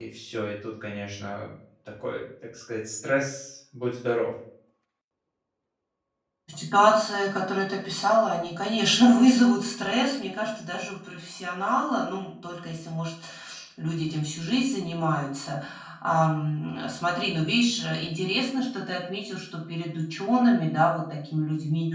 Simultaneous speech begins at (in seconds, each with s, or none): none